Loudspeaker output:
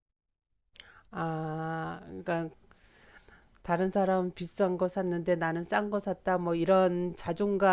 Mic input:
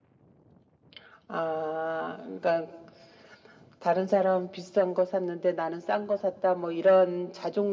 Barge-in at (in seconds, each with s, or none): none